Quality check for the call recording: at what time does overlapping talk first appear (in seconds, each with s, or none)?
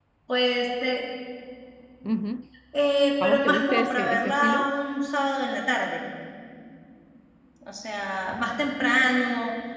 3.2 s